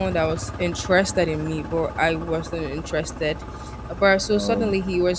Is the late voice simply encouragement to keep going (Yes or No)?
Yes